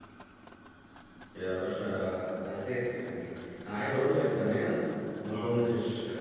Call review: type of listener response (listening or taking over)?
listening